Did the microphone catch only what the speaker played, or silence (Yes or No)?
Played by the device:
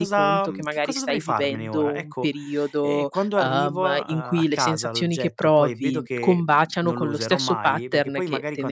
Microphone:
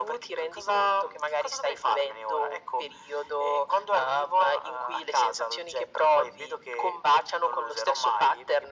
Yes